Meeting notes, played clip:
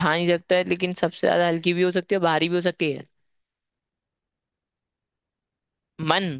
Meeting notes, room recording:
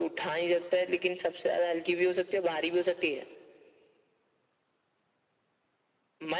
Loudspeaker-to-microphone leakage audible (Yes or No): Yes